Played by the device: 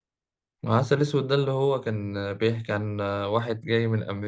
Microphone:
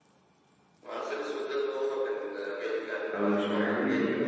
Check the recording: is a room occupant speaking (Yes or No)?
Yes